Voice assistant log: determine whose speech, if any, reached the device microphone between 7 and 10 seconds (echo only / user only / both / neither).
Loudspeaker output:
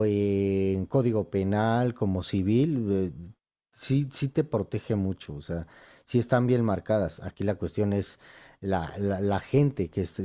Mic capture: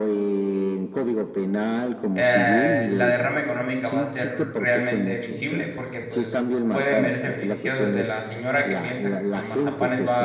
both